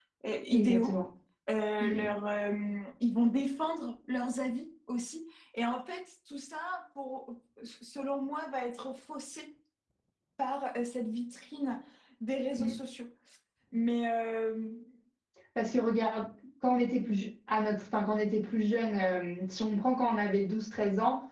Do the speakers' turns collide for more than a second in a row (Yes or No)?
No